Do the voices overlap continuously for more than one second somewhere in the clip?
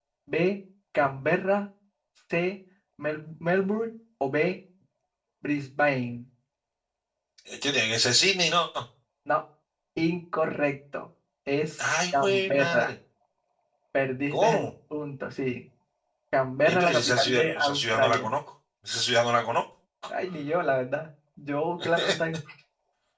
Yes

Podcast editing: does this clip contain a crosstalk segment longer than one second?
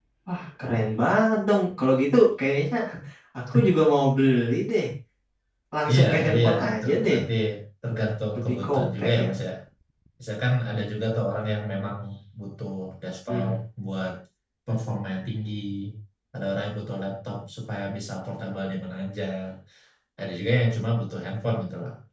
Yes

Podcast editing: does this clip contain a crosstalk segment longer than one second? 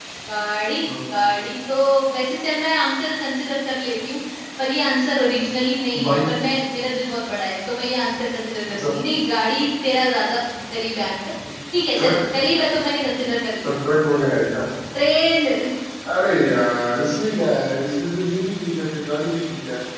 No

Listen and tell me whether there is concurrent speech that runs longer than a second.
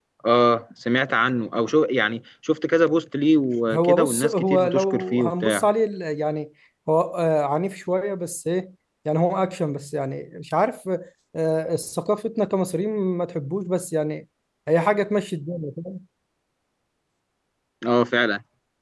Yes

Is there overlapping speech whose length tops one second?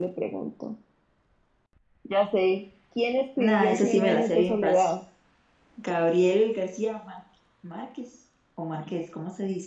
Yes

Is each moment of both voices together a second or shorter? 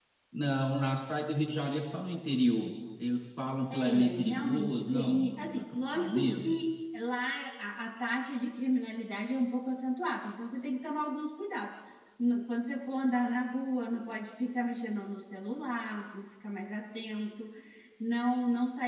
No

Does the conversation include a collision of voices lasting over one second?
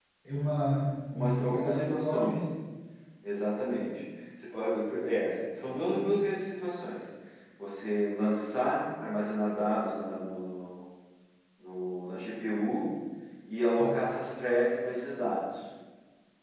Yes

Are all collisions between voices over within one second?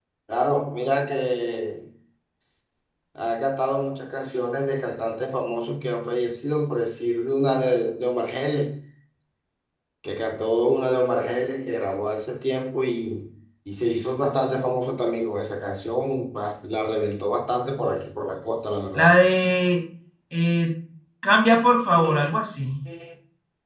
Yes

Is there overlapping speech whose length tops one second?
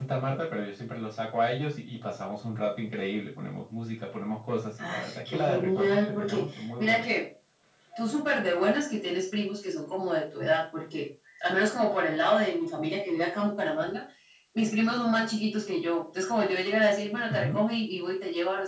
Yes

